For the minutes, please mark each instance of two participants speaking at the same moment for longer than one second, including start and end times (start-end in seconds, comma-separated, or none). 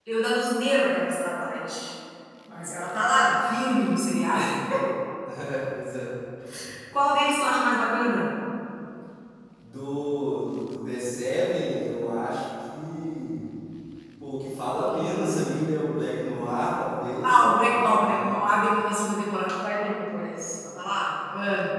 17.2-18.4